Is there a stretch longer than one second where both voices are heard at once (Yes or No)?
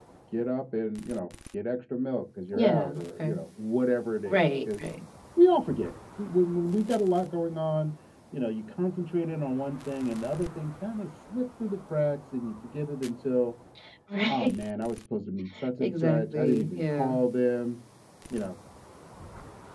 Yes